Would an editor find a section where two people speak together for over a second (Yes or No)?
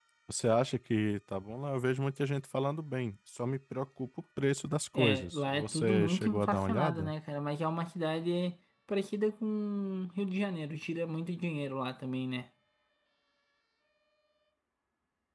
Yes